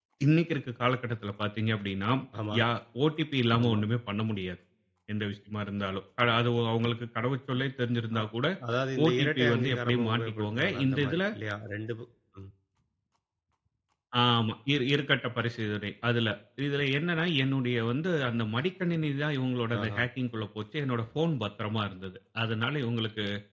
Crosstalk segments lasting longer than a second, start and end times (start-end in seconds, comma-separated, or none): 9.1-11.2